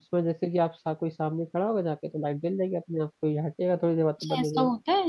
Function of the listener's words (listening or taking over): taking over